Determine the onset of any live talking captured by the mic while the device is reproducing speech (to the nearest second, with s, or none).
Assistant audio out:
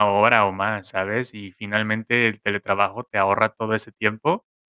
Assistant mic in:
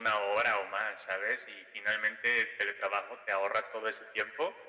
none